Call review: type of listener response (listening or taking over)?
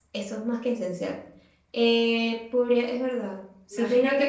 taking over